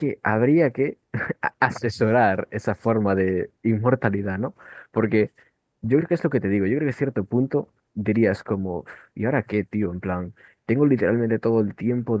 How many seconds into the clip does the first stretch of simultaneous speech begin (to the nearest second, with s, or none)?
none